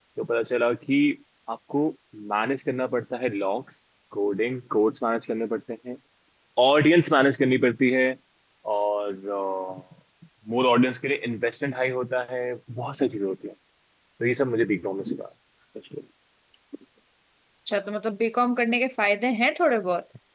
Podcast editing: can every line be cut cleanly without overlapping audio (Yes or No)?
Yes